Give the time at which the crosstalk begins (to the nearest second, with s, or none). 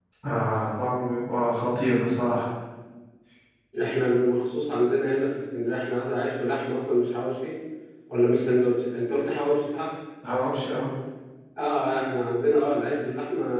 none